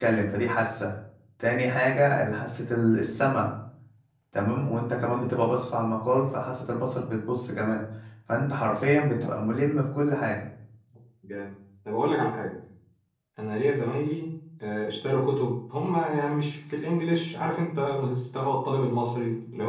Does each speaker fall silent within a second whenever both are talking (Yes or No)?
Yes